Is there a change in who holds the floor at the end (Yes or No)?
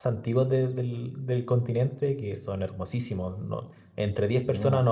No